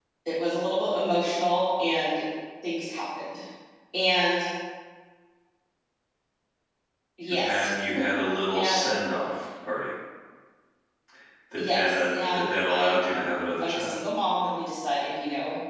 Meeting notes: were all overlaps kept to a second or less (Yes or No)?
No